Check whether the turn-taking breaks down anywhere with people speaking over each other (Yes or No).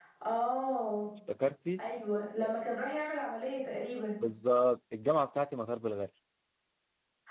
No